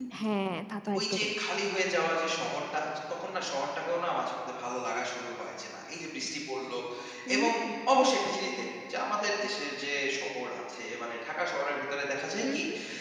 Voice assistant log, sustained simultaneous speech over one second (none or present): none